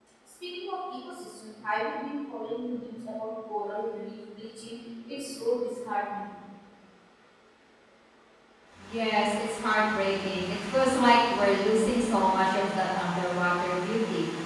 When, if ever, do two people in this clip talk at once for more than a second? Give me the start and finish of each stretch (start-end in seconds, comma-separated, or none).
none